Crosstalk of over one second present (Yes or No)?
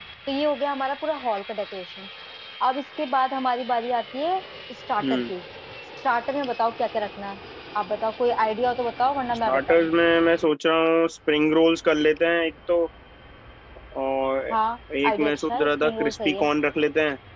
Yes